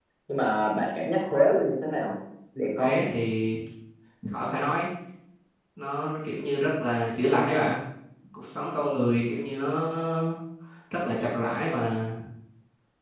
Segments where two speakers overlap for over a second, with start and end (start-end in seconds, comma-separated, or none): none